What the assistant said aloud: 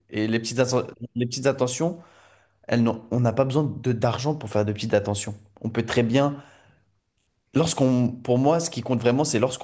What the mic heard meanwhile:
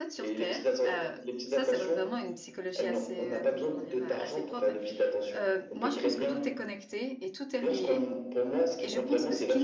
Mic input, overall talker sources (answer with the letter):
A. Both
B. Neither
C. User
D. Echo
A